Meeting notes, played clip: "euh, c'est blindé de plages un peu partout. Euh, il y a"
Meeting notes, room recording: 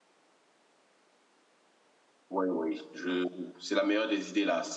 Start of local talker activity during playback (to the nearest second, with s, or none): 2 s